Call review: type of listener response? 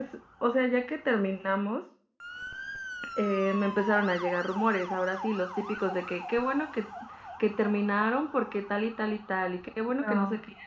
listening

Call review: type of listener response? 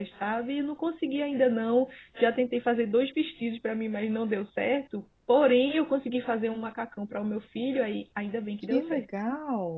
taking over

